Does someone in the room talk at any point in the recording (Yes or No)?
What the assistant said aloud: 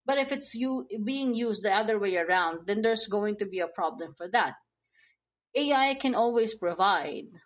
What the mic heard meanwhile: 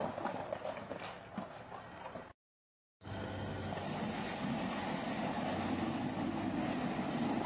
No